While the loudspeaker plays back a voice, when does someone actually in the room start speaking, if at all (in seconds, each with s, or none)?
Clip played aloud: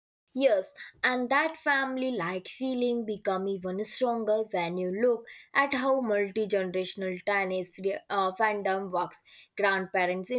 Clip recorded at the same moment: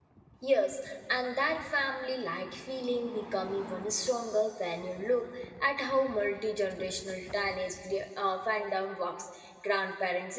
none